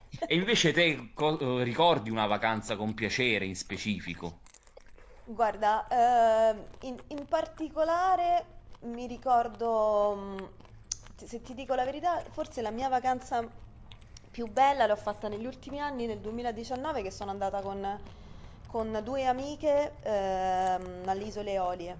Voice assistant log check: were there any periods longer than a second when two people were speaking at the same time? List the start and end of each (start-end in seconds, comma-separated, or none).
none